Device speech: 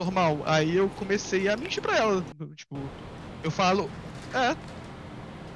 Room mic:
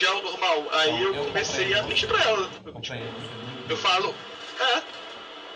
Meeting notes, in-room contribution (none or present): present